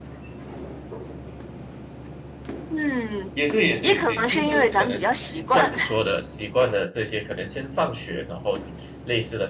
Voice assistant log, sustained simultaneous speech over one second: present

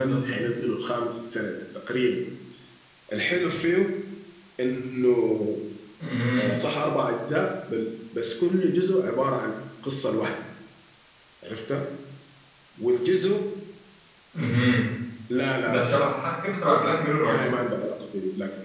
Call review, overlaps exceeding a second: none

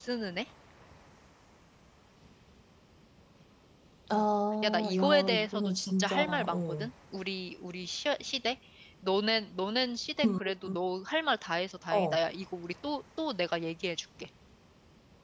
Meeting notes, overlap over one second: present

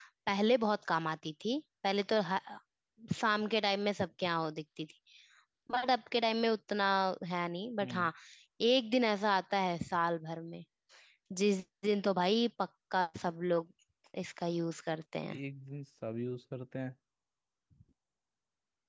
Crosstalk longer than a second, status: none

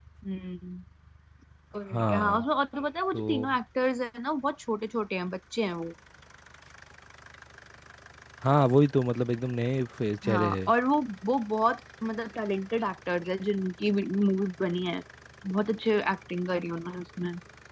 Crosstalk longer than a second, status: none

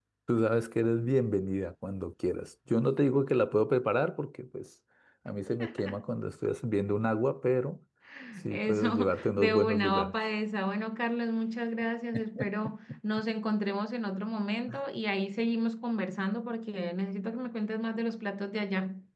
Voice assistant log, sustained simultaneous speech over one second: present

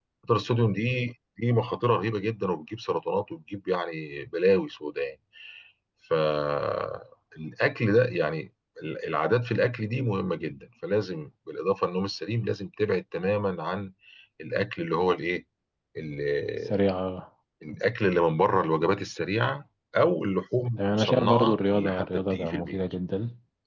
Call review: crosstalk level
present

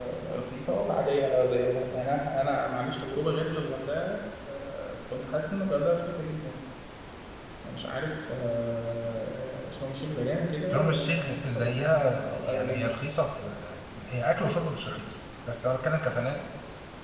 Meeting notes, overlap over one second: present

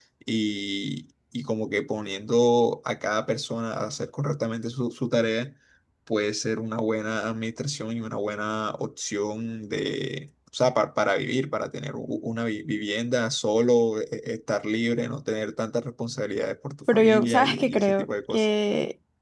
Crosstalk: present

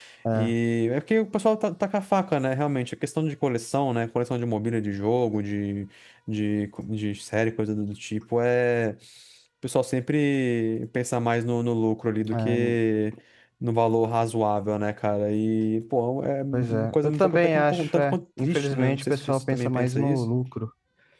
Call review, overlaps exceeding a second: present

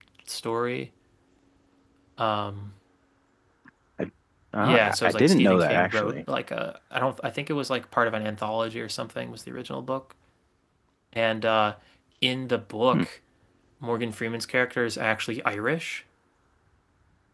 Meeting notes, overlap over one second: present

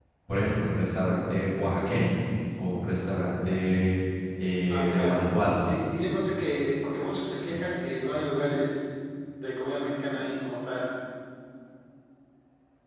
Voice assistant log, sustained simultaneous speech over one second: none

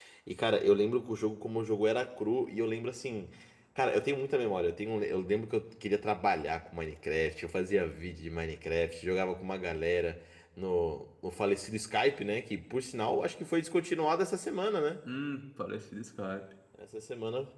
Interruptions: none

